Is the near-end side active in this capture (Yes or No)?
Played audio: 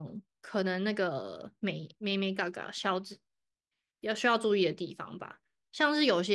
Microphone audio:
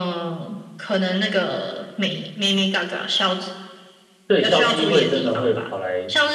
Yes